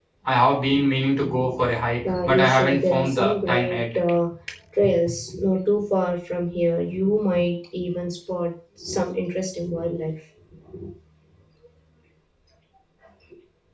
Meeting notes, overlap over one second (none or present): present